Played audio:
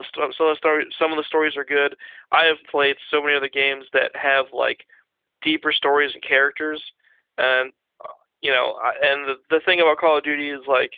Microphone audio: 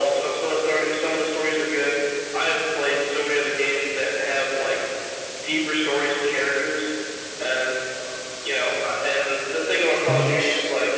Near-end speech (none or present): present